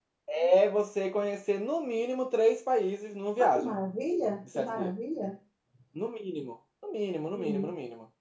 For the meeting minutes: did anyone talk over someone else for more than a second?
No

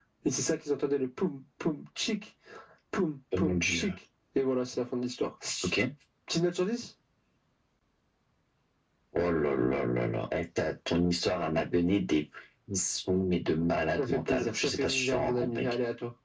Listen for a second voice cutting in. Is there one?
Yes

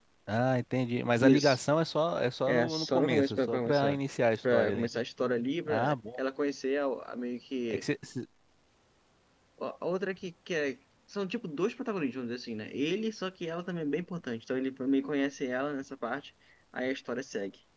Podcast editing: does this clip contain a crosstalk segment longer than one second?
Yes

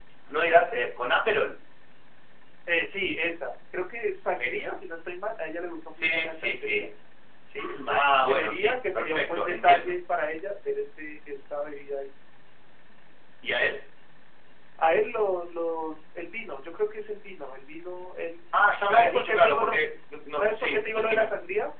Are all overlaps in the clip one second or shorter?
No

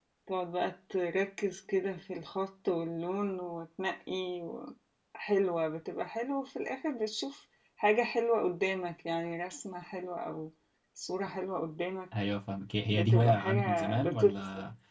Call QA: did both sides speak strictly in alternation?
No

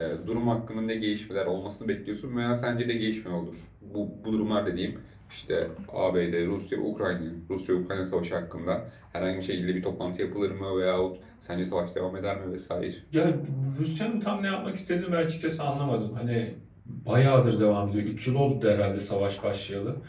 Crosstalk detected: No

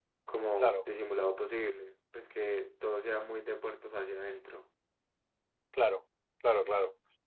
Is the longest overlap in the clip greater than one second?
No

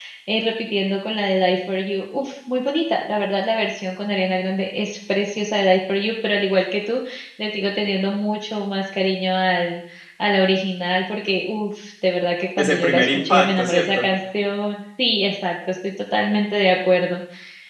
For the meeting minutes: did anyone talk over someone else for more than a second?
Yes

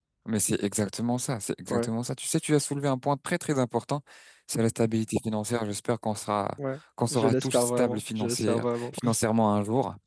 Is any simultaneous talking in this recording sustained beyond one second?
Yes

